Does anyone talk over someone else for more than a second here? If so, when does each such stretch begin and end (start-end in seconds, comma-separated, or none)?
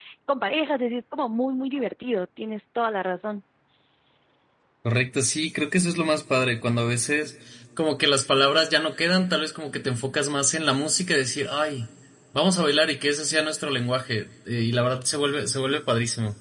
none